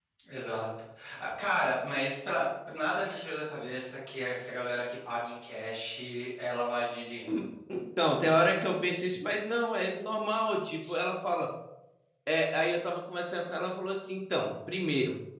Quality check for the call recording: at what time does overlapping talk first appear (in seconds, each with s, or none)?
none